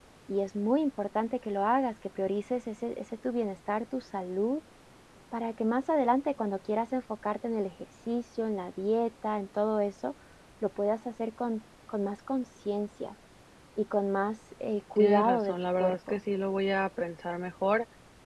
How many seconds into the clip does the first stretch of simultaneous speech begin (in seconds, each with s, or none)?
14.9 s